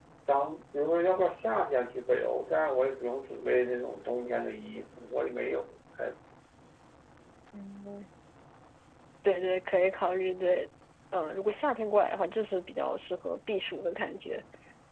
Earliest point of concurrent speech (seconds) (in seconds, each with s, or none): none